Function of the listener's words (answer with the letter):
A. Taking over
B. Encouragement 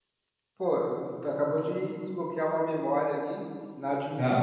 B